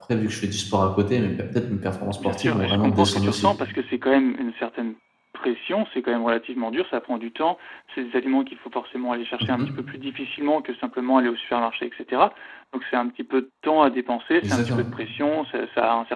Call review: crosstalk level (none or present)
present